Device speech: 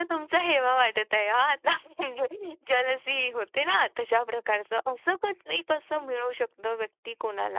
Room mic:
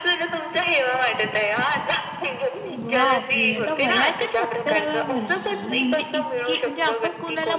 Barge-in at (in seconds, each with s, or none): 2.7 s